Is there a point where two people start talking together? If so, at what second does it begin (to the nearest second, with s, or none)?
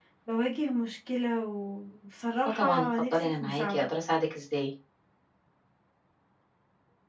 2 s